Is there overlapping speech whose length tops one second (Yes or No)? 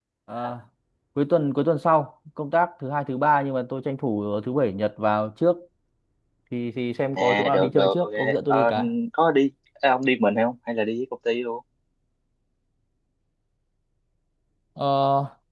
Yes